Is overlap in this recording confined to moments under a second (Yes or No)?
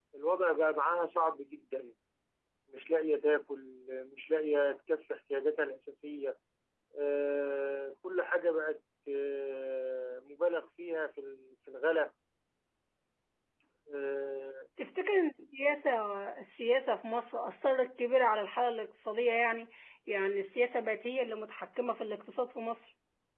Yes